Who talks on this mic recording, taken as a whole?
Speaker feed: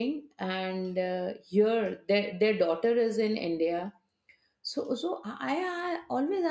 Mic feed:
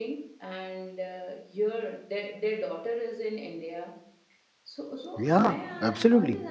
both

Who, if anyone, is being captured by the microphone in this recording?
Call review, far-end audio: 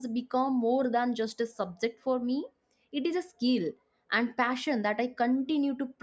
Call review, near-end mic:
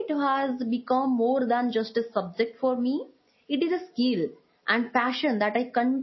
echo only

